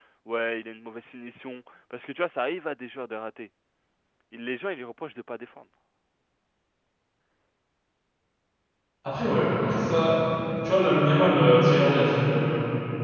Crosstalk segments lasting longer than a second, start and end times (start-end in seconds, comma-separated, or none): none